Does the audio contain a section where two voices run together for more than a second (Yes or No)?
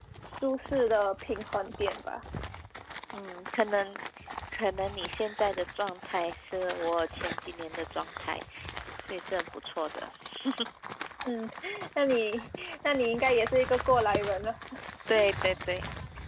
No